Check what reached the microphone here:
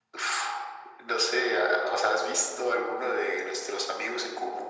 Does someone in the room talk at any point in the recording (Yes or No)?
No